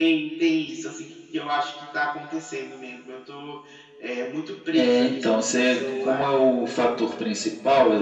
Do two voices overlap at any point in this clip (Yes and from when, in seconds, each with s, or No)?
Yes, from 4.7 s